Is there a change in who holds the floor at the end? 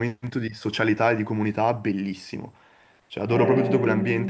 Yes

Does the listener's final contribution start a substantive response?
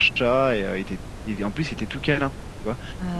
No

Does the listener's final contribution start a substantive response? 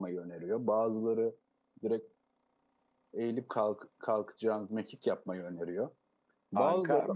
Yes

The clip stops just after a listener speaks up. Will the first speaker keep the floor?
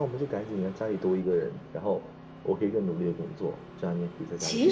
No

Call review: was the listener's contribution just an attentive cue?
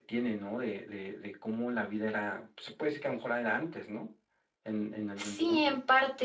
No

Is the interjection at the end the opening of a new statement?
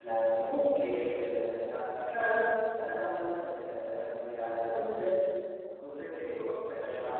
No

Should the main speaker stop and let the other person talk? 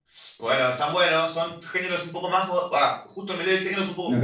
Yes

